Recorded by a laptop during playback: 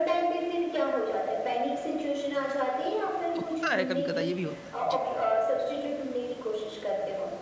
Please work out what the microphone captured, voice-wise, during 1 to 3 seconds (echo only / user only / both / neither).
echo only